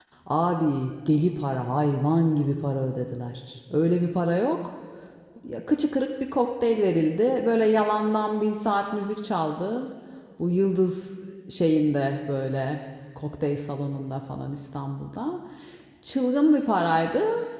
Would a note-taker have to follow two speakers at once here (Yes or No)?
No